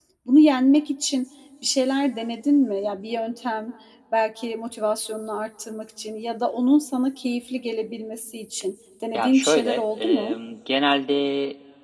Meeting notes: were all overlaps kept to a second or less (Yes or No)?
No